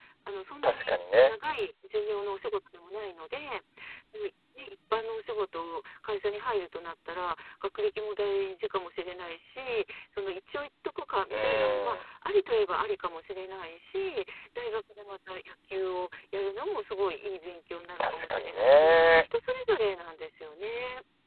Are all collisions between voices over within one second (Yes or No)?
No